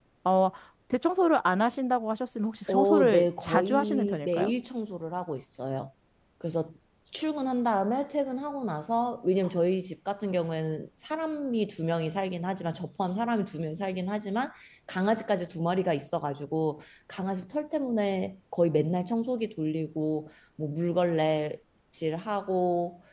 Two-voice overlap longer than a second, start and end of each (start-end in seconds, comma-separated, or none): 2.7-4.5